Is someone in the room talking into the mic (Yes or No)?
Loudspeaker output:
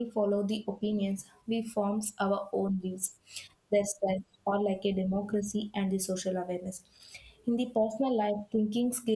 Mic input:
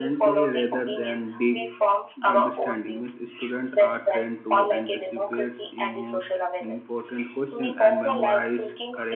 Yes